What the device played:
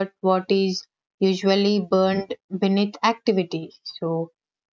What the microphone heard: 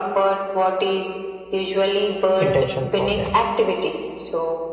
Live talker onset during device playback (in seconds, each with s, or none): 2.4 s